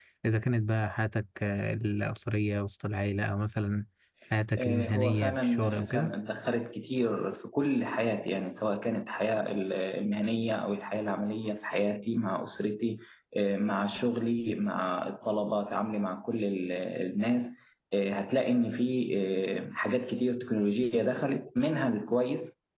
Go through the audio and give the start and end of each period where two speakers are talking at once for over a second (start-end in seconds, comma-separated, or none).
4.6-6.1